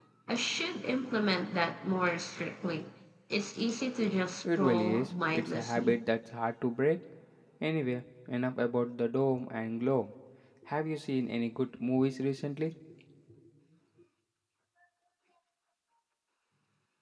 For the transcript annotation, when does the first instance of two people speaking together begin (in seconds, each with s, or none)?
4.6 s